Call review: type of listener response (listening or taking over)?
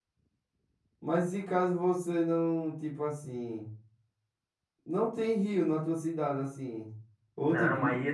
taking over